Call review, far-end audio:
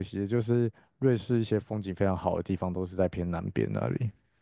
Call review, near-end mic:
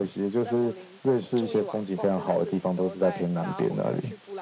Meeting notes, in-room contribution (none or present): present